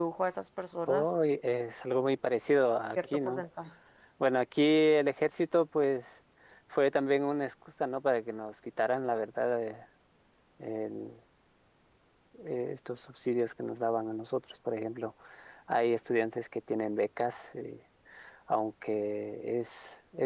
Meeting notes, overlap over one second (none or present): none